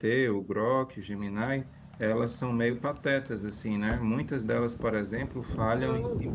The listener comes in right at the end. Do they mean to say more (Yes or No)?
No